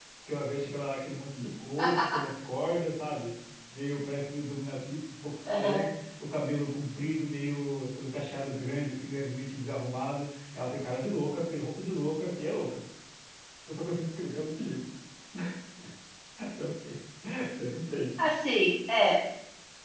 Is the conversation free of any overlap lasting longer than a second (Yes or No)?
Yes